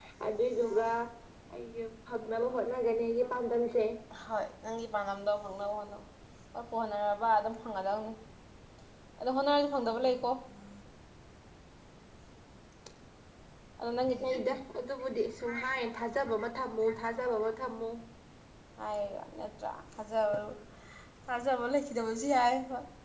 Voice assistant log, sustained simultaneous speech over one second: none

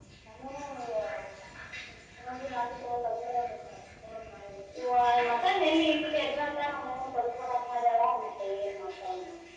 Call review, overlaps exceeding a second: none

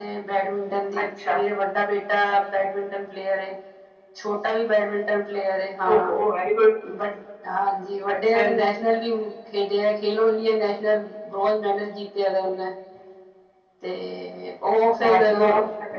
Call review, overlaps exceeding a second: none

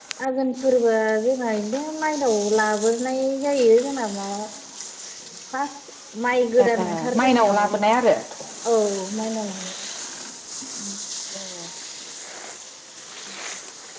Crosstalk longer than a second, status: present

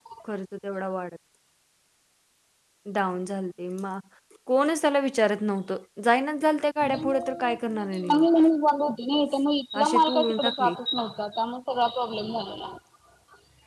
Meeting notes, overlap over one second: present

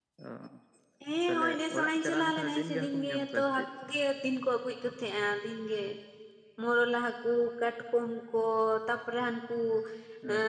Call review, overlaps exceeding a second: present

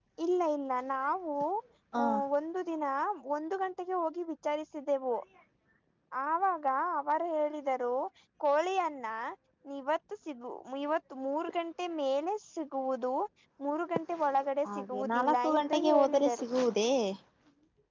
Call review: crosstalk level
present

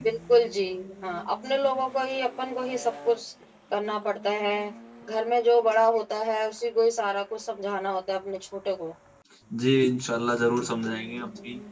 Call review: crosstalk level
none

